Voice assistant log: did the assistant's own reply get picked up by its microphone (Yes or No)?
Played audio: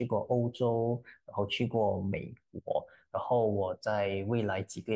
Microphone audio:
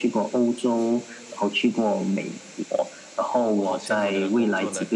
Yes